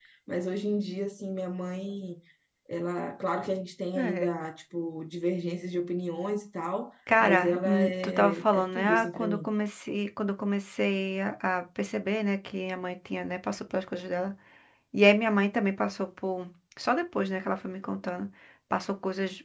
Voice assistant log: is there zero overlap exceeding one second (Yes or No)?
No